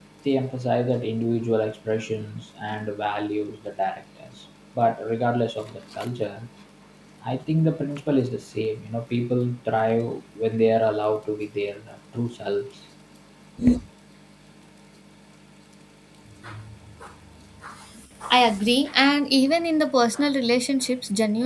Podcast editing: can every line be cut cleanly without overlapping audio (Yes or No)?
Yes